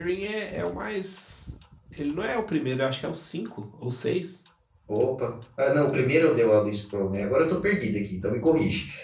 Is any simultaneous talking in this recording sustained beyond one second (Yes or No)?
No